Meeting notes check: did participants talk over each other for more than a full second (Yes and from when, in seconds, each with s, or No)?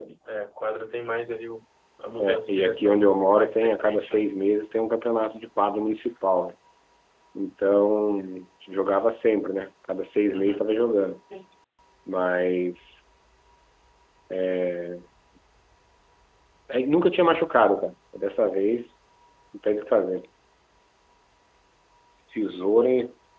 Yes, from 2.2 s